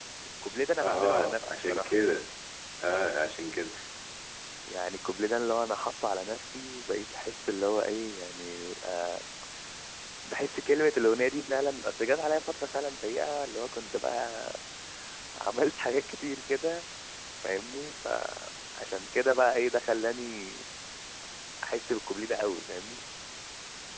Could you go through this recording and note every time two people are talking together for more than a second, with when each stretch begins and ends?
0.8-2.0

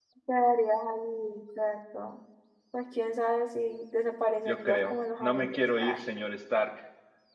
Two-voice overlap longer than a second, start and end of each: 4.5-6.0

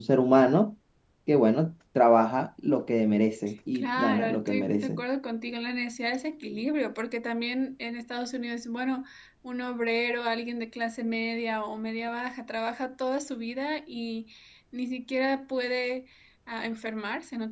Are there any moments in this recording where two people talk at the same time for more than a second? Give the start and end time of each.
3.7-5.0

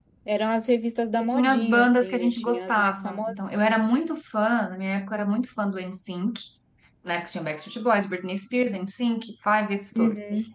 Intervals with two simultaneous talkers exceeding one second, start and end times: 1.1-3.3

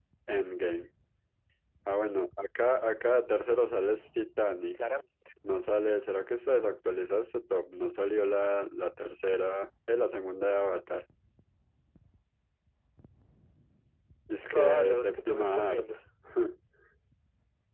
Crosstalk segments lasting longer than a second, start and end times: 14.3-15.9

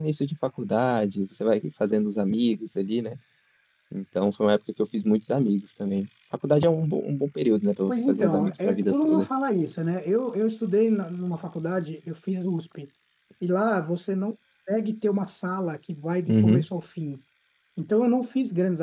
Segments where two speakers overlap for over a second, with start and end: 7.9-9.3

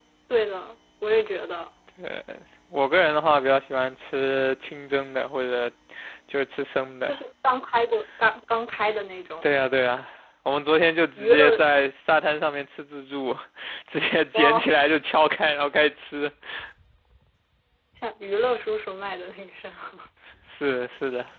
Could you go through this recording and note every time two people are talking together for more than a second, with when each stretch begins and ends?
none

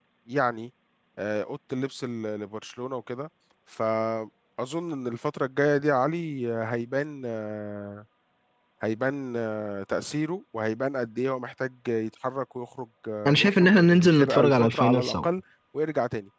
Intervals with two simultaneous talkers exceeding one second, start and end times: 13.3-15.3

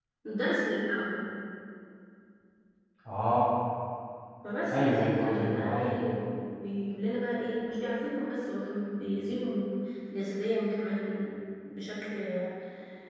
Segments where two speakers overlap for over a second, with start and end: 4.7-5.9

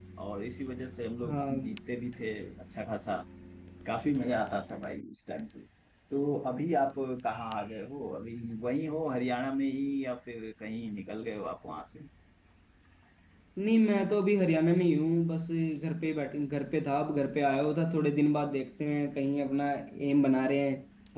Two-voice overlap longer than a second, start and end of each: none

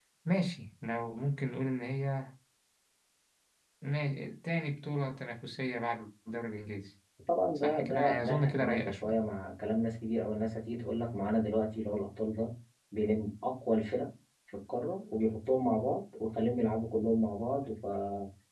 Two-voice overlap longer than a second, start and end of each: 7.6-9.1

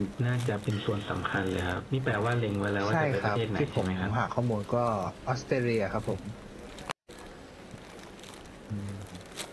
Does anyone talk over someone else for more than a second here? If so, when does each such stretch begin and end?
2.9-4.1

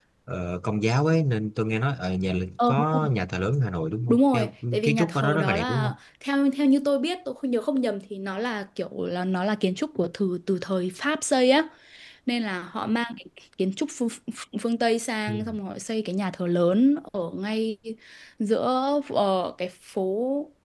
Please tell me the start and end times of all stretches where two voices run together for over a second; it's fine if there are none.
4.1-5.9

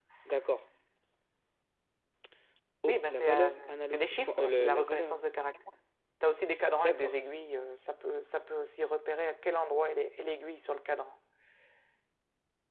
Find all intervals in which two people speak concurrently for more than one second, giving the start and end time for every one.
2.9-5.1

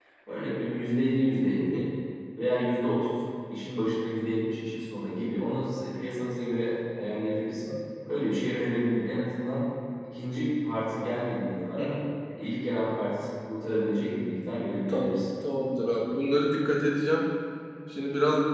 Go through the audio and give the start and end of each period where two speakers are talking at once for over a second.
none

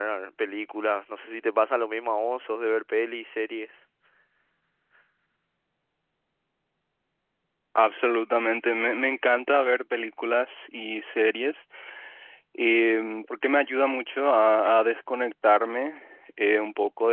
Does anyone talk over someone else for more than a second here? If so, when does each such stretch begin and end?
none

